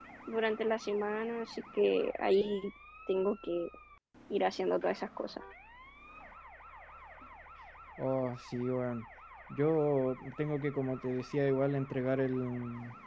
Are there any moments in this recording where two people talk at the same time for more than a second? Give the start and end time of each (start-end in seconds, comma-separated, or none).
none